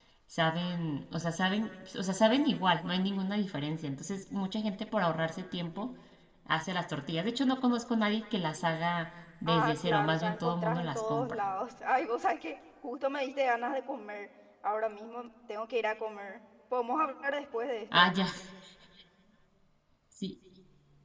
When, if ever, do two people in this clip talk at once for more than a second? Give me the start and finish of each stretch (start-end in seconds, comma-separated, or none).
9.5-11.4